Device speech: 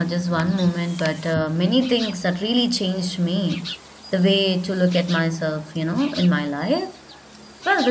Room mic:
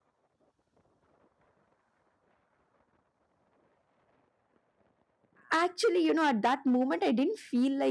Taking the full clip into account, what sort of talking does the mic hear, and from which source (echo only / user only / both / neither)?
user only